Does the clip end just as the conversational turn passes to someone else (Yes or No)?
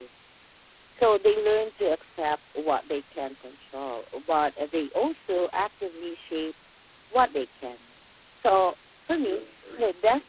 No